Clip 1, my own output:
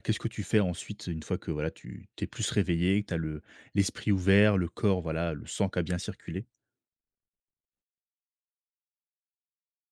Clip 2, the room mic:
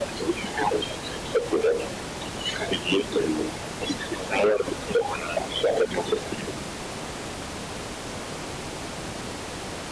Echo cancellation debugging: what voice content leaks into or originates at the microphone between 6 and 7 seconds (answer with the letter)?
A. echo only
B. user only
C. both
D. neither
A